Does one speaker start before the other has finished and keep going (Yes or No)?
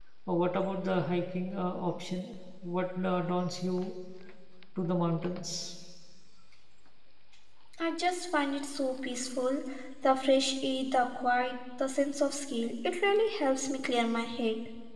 No